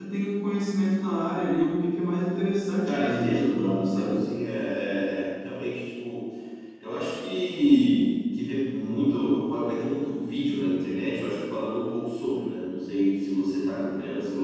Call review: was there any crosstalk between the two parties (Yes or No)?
Yes